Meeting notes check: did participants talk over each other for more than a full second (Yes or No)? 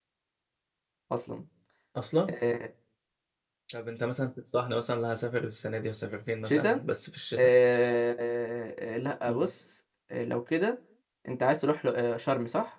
No